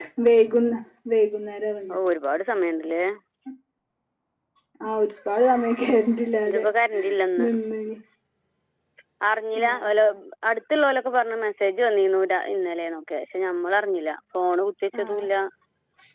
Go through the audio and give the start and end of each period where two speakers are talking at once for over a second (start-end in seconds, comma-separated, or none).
none